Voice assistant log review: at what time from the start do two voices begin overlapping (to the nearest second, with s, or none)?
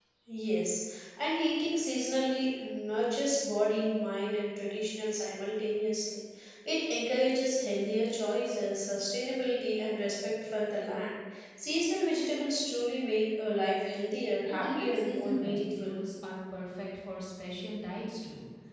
14 s